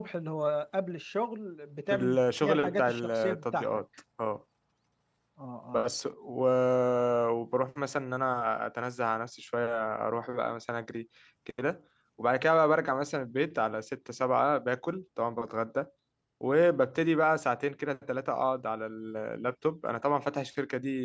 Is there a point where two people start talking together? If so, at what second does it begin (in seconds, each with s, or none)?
1.9 s